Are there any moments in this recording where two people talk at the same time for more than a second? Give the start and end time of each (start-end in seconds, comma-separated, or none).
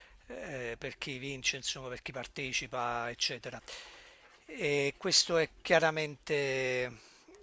none